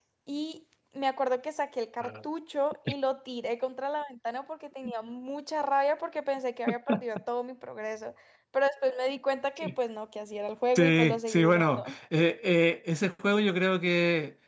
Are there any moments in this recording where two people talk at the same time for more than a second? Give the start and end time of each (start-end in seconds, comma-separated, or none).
10.8-11.9